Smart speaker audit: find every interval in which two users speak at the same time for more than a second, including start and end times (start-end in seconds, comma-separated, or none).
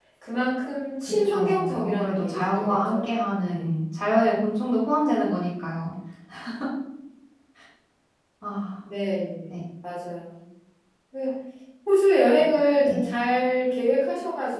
1.2-3.0